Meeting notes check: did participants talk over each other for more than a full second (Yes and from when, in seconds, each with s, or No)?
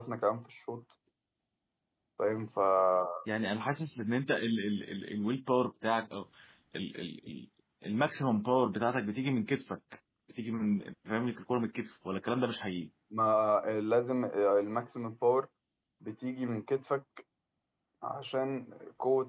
No